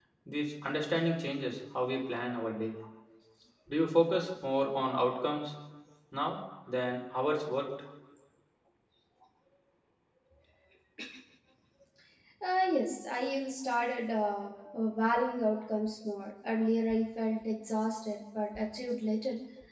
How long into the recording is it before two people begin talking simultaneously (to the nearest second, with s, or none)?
none